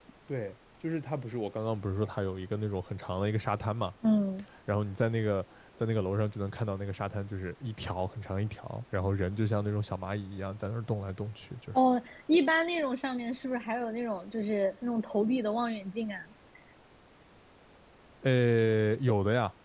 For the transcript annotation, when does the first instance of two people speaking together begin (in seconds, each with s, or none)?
none